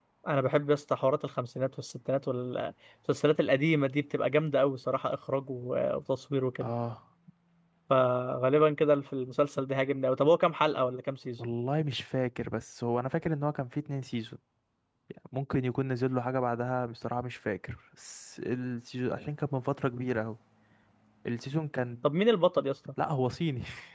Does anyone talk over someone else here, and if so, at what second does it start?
none

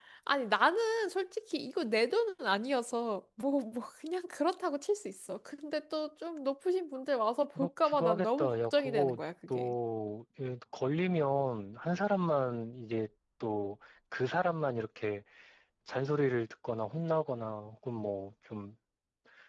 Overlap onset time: 7.5 s

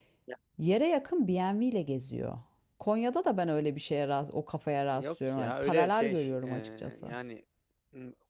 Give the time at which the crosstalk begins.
4.9 s

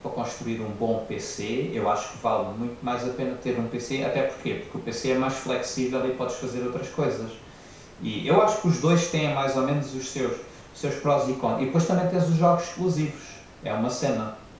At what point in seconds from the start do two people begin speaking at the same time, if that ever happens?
none

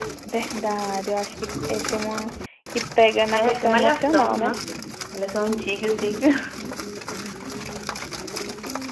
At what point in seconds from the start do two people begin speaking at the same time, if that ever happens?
3.3 s

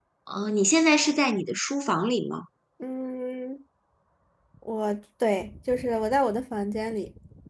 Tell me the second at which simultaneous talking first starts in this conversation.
none

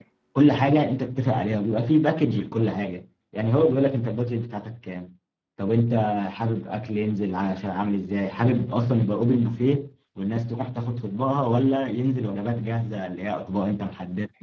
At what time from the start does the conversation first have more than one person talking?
none

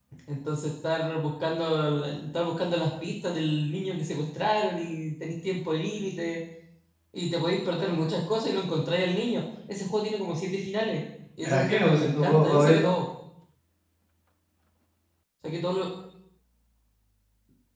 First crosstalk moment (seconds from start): 11.4 s

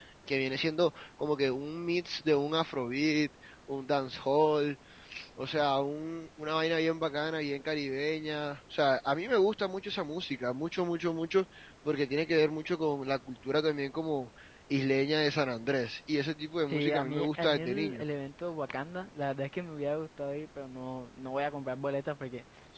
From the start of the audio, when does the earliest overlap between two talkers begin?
16.7 s

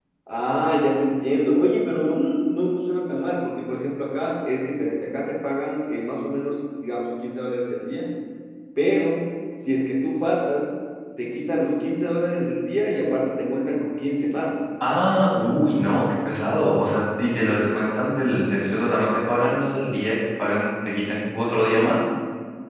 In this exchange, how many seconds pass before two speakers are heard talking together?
none

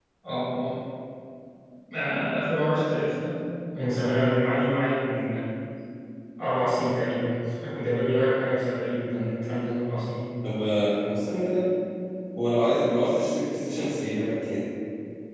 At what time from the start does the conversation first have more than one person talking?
none

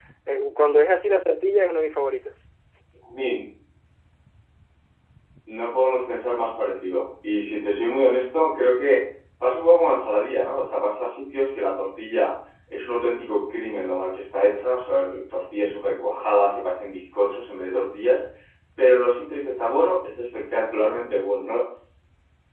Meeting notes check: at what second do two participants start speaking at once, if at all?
none

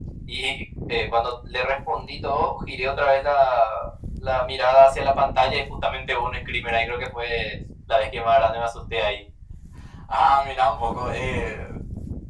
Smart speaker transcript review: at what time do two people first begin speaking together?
none

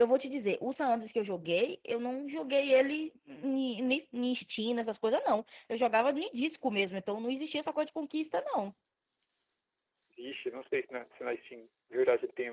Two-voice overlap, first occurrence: none

